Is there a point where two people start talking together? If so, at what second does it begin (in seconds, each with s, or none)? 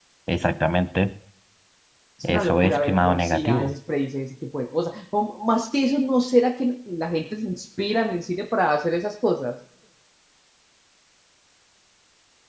2.2 s